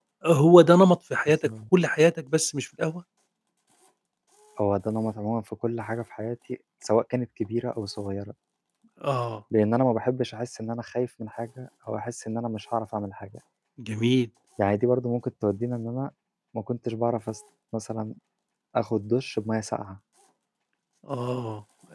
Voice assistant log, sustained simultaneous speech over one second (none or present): none